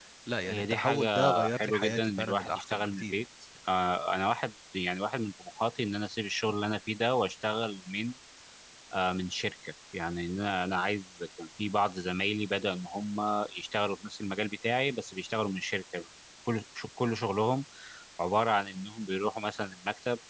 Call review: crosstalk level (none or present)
present